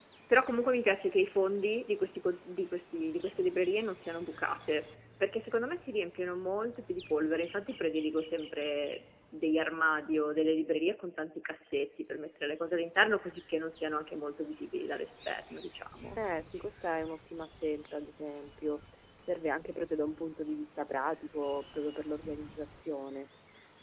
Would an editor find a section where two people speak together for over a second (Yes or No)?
No